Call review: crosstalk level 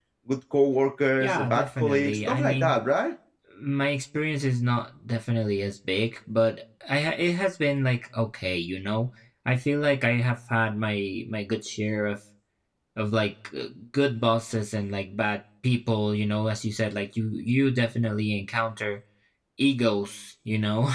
present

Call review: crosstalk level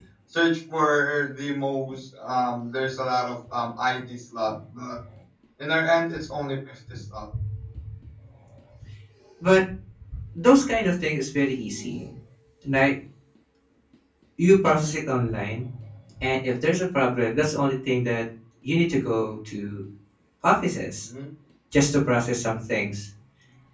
none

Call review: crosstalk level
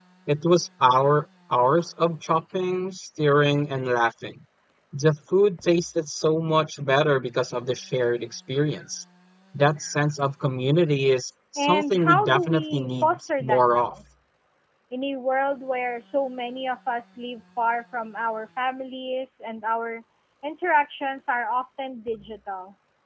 present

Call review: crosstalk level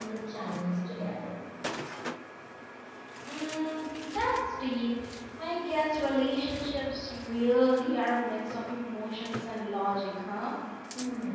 none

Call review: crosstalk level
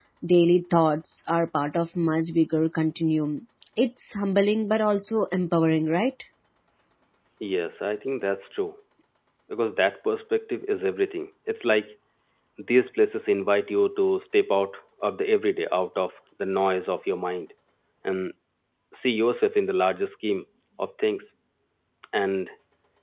none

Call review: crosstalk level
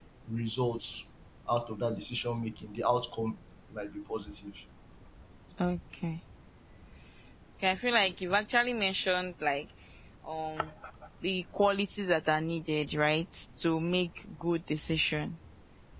none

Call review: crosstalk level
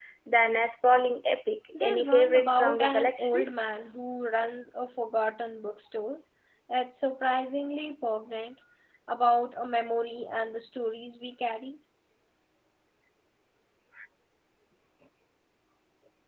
present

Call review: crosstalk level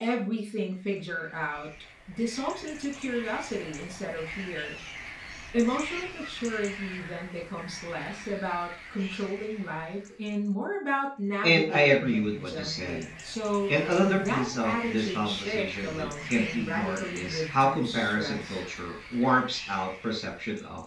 present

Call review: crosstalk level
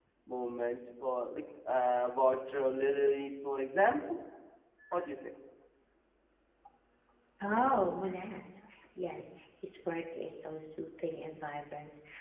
none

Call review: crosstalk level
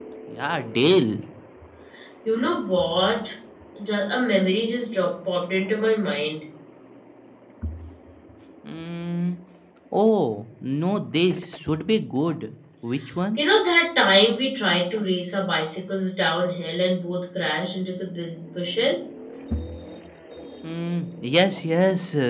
none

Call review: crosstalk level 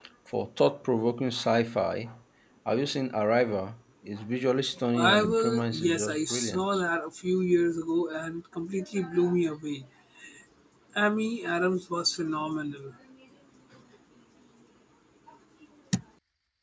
present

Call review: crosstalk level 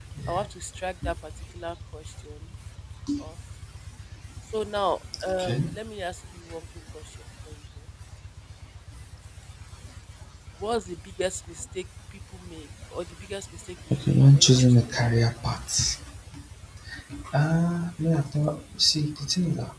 present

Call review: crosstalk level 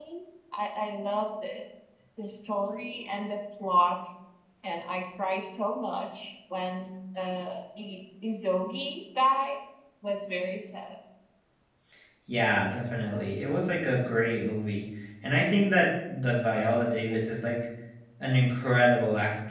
none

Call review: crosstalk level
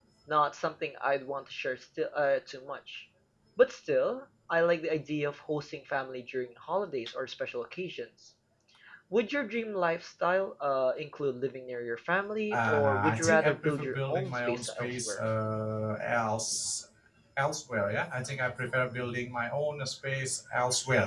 present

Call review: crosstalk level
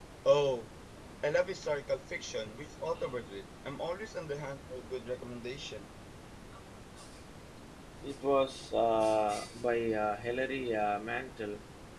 none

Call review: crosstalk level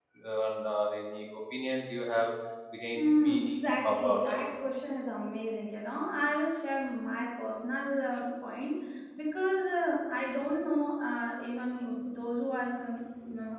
present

